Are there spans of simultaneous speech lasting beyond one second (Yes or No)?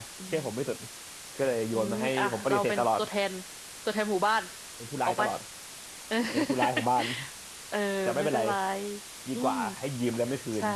Yes